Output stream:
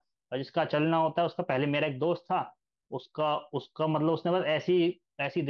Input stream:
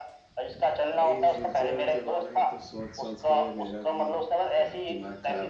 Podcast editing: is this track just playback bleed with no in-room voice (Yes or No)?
No